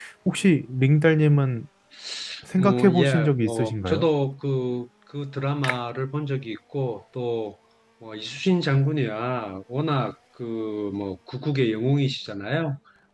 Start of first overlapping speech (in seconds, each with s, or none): 2.6 s